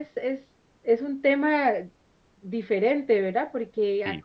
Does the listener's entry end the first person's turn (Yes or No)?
No